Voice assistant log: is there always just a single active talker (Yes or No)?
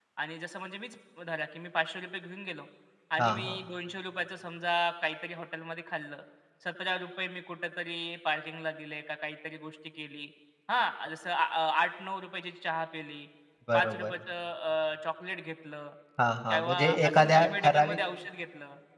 No